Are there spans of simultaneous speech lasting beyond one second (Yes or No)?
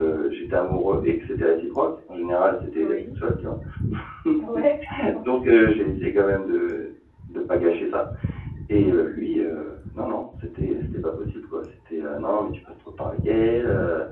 No